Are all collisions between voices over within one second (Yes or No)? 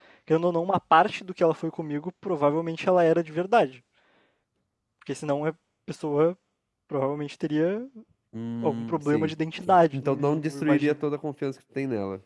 No